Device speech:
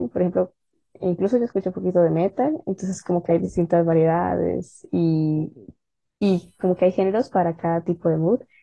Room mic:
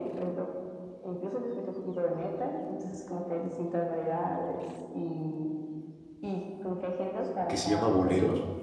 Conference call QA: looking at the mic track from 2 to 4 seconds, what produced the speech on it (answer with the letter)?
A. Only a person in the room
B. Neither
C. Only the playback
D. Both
C